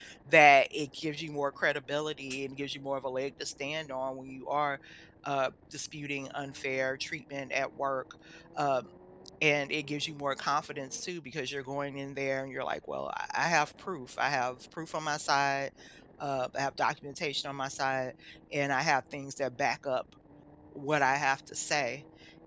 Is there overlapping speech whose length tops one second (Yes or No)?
No